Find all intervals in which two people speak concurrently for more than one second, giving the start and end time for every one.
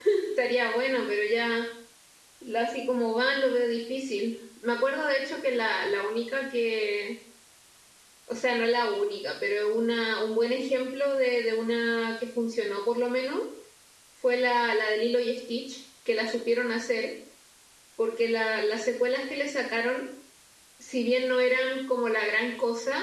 none

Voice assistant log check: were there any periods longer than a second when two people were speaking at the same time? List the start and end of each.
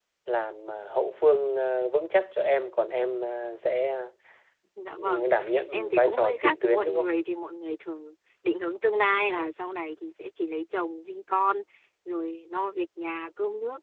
5.7-7.1

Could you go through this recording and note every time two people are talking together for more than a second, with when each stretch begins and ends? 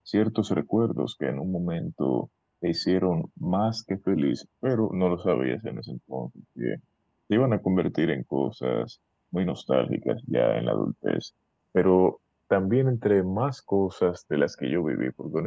none

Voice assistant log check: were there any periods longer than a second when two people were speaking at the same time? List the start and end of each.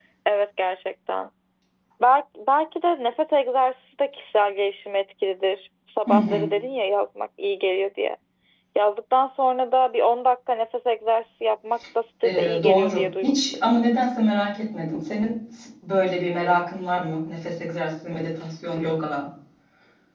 12.2-13.7

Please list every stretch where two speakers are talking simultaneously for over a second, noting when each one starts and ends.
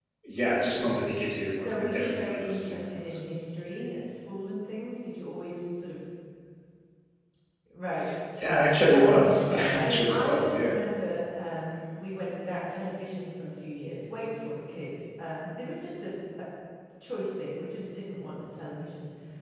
1.6-3.2, 8.9-10.8

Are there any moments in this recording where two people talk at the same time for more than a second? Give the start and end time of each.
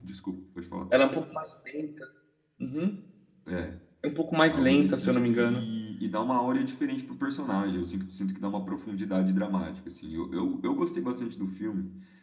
4.5-5.7

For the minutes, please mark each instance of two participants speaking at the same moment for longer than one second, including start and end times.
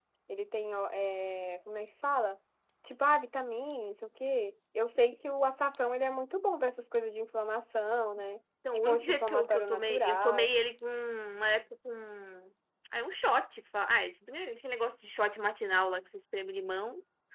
8.8-10.5

